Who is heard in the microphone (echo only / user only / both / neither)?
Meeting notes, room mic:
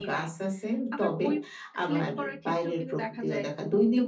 both